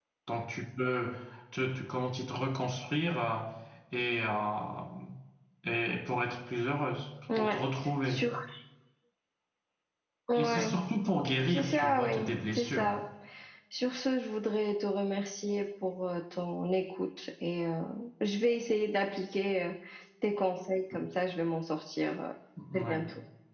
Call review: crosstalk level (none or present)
present